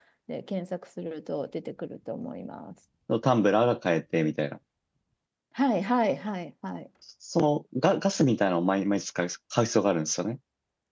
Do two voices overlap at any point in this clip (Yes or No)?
No